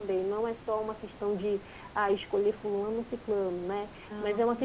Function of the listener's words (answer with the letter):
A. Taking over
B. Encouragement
B